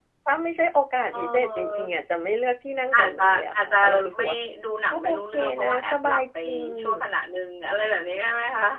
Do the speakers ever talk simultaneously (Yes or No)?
Yes